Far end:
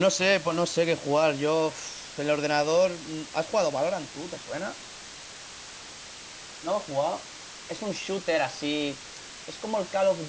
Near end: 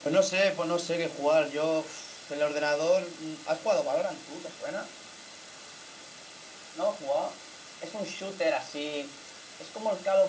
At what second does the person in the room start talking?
none

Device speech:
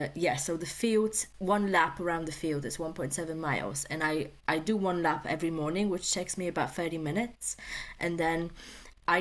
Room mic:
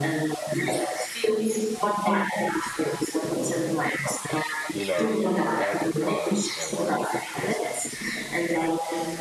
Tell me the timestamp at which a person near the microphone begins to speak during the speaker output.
4.7 s

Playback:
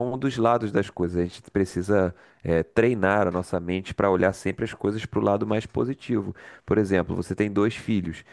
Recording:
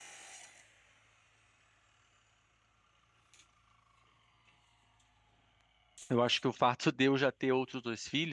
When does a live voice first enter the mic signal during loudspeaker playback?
6.1 s

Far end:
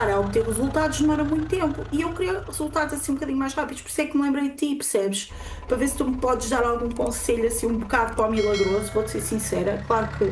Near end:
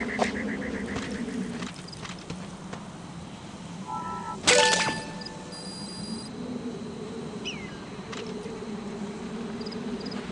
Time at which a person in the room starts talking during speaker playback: none

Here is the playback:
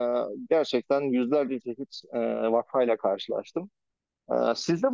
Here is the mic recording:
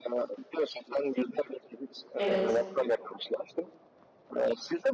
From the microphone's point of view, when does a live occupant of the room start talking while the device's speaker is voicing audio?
2.2 s

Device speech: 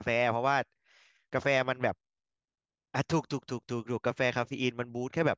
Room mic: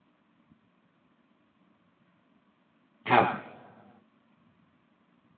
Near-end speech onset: 3.1 s

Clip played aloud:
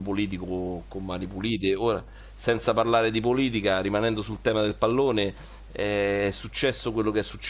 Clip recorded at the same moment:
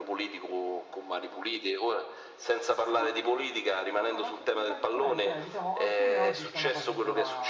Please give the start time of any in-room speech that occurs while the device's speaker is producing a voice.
2.9 s

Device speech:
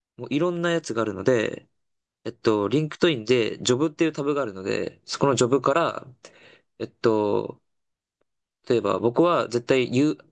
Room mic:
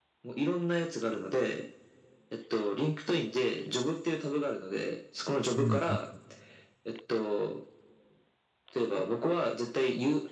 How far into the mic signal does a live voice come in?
5.6 s

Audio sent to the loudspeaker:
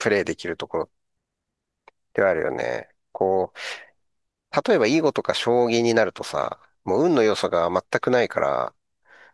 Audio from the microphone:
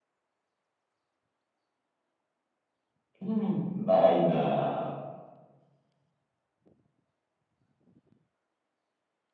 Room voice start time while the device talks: 3.2 s

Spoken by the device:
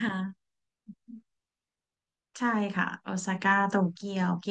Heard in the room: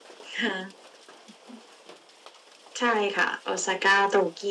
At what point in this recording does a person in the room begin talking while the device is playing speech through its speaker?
none

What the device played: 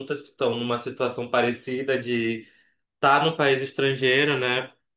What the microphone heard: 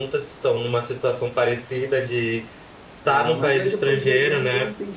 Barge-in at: 3.0 s

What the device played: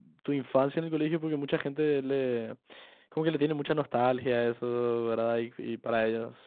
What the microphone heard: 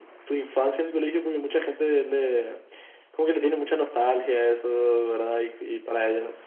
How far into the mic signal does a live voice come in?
none

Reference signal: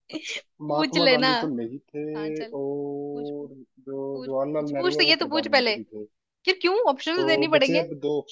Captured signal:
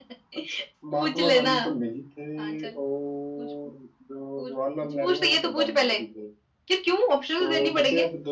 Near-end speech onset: none

